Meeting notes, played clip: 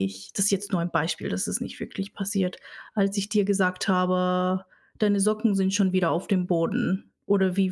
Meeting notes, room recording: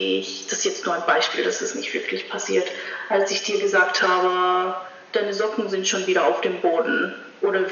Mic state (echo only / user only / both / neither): echo only